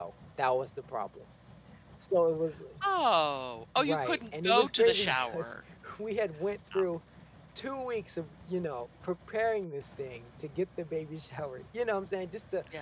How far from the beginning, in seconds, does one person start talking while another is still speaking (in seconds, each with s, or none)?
3.8 s